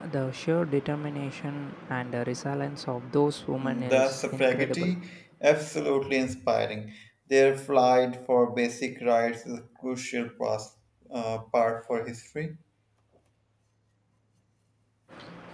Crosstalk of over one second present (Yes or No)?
Yes